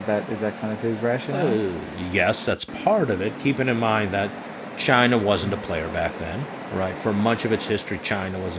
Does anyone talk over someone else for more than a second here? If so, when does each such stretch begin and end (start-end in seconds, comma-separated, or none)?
none